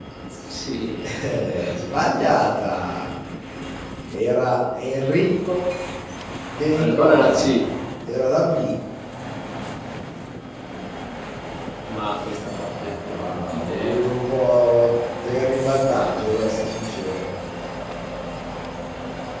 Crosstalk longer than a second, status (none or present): present